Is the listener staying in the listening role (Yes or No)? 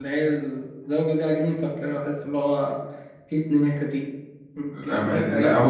No